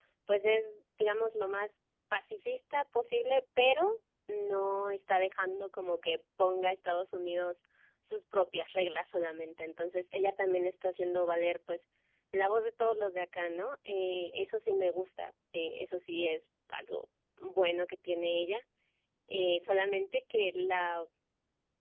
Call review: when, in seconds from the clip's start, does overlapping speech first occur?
none

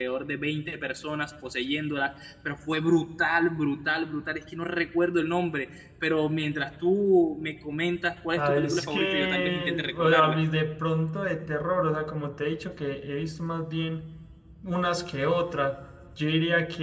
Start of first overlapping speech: 8 s

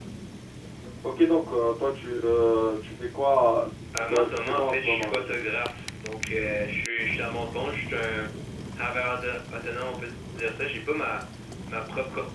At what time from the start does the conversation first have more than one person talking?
4 s

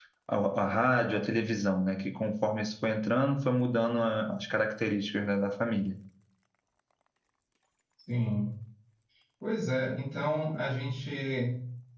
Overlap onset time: none

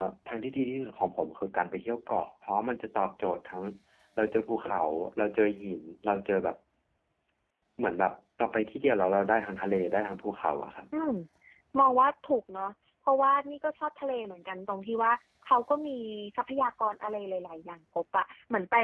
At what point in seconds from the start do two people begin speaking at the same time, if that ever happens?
none

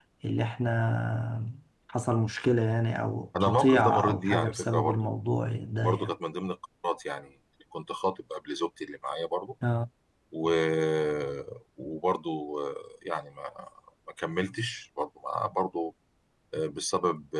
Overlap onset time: 3 s

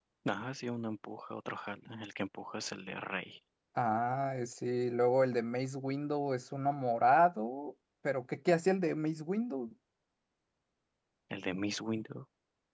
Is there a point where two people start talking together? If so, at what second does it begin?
none

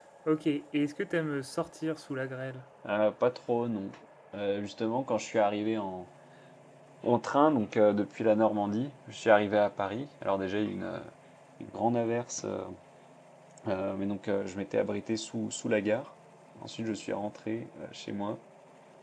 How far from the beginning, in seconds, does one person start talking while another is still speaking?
none

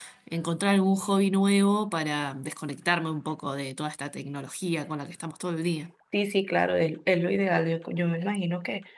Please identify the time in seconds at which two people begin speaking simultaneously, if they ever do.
none

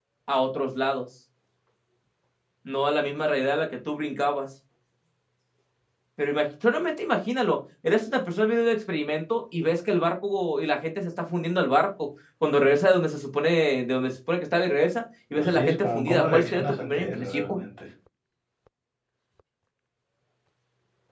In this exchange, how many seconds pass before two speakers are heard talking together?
15 s

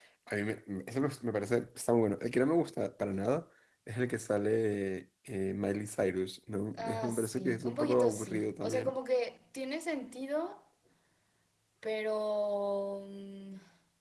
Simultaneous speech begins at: 7 s

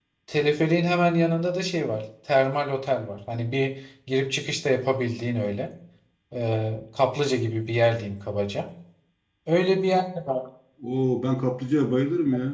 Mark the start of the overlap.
none

